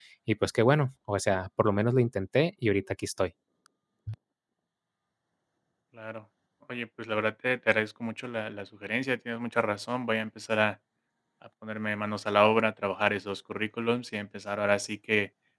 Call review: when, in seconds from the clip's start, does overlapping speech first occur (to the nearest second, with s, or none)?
none